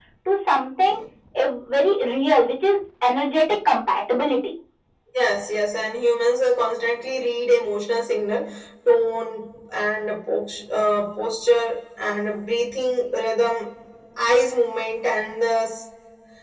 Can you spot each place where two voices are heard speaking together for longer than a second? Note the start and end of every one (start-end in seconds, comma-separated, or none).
none